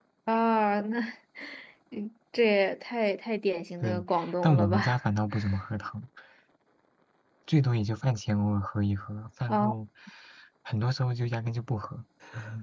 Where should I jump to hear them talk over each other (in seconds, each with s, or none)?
3.8 s